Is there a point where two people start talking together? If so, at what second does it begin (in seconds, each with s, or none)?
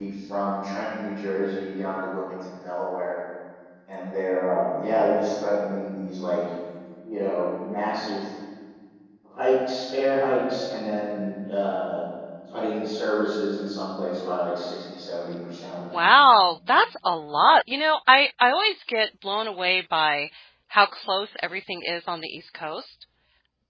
none